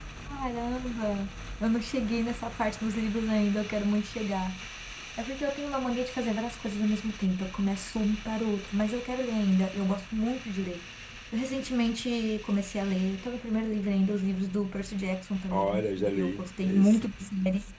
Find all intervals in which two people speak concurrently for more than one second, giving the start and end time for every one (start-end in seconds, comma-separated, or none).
15.5-17.1